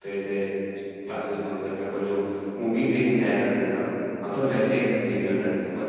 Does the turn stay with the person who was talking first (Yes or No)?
Yes